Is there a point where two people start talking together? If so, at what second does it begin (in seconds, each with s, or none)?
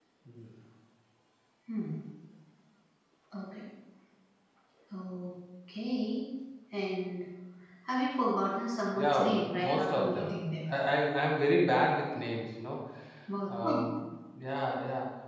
8.9 s